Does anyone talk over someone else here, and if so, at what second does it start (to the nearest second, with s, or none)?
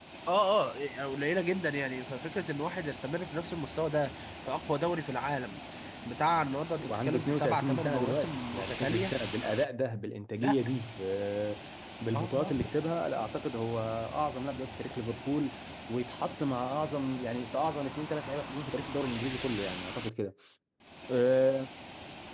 7 s